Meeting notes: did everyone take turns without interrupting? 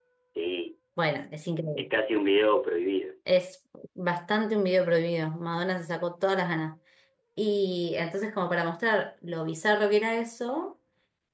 Yes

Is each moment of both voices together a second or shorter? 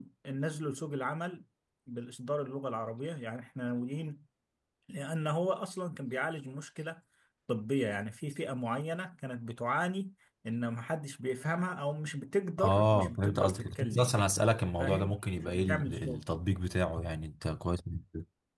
No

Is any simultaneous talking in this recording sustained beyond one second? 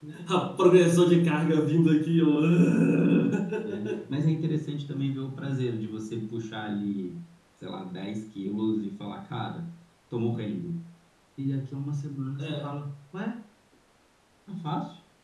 No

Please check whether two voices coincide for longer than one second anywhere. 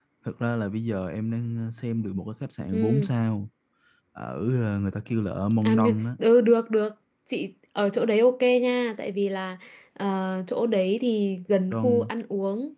No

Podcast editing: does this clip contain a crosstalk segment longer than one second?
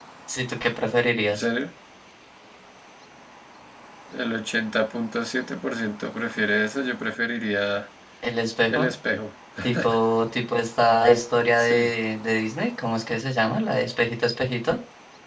No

